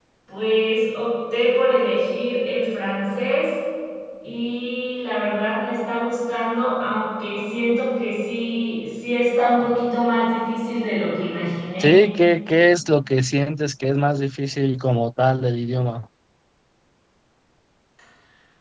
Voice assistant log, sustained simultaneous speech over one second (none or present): none